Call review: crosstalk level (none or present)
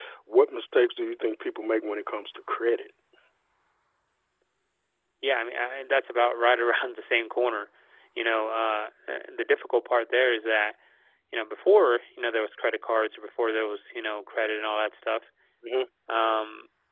none